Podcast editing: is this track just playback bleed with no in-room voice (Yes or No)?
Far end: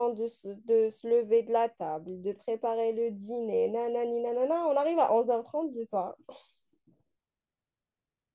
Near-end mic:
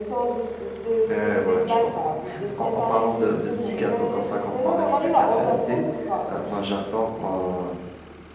No